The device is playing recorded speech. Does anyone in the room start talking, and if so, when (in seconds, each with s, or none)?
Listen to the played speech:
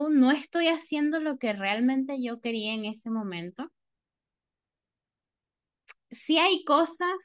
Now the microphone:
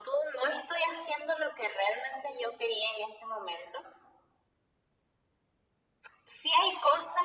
none